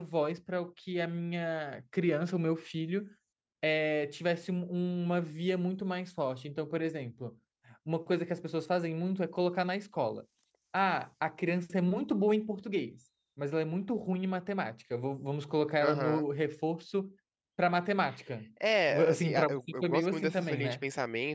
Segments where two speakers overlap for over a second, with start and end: 18.9-20.8

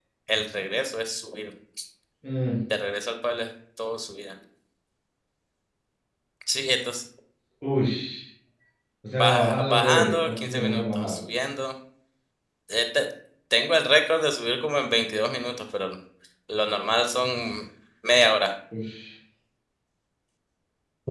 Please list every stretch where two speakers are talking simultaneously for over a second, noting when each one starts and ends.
9.2-11.2

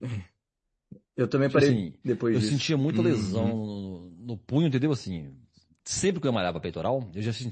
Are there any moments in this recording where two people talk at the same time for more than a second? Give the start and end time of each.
2.3-3.6

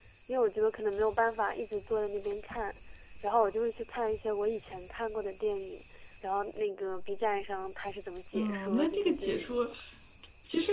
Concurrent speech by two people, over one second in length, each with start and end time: 8.3-9.7

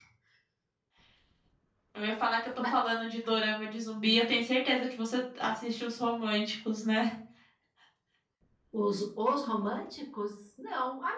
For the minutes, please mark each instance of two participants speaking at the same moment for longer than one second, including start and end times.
none

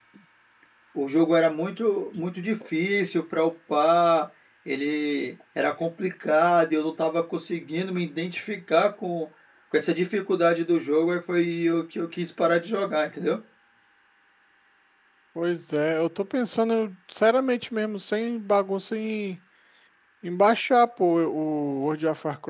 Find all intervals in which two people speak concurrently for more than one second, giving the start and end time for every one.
none

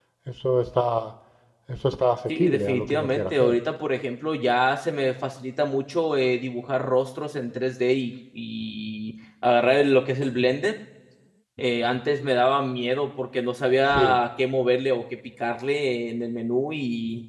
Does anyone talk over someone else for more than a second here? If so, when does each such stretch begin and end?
2.3-3.5

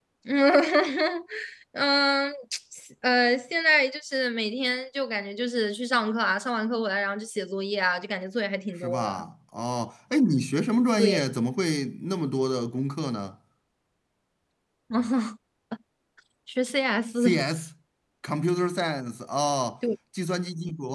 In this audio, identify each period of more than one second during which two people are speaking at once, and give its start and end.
none

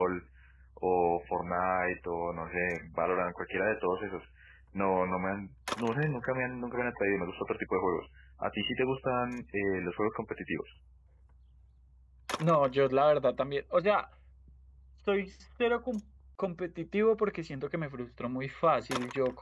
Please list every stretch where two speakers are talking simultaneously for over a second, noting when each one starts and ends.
none

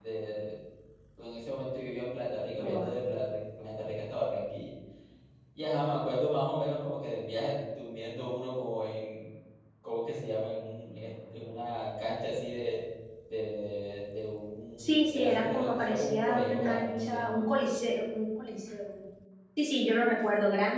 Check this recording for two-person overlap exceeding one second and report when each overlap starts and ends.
14.8-17.2

